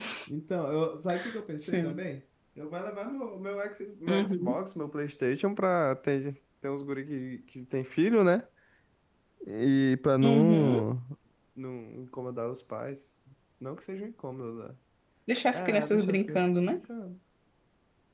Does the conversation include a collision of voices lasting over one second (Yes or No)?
Yes